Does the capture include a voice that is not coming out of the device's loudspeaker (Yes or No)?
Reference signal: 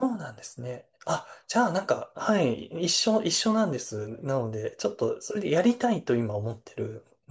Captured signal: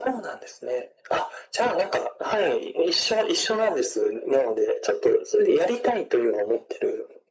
No